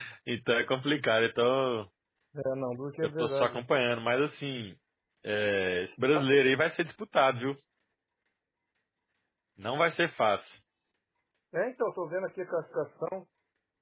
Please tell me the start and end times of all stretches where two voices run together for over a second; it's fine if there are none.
none

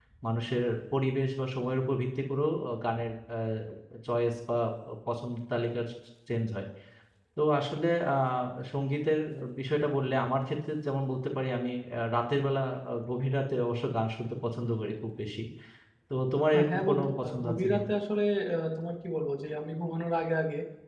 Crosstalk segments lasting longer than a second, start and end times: 16.6-17.8

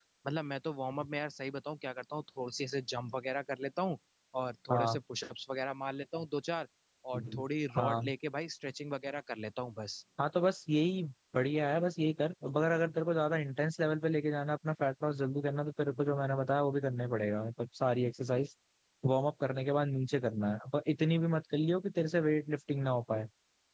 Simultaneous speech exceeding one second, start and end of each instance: none

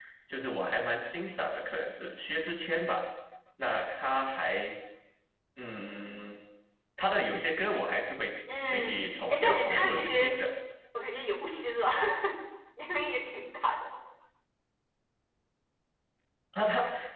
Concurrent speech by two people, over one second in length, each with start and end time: 8.7-10.4

